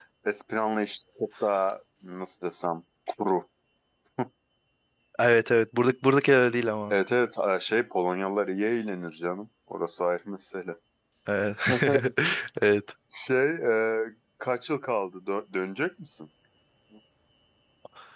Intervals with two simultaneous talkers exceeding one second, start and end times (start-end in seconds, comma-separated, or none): none